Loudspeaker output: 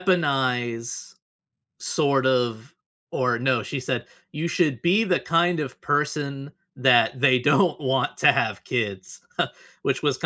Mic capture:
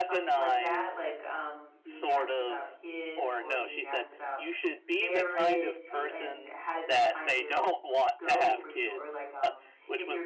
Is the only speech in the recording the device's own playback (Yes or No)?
No